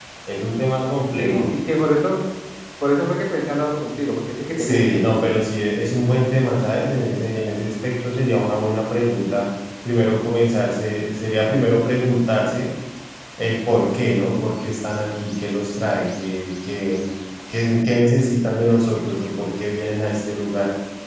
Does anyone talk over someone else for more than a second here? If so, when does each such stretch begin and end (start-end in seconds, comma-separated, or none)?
none